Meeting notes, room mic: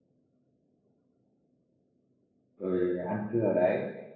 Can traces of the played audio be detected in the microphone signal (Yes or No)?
No